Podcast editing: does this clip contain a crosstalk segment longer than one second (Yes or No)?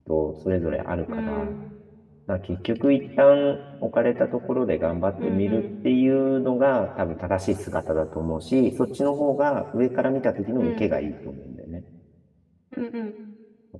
No